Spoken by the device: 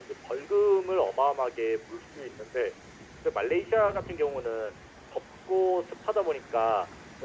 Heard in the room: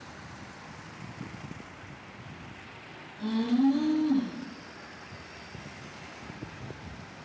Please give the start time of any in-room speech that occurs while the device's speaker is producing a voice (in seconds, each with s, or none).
3.2 s